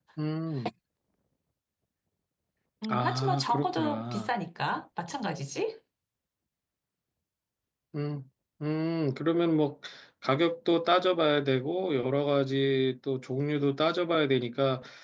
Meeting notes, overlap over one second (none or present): present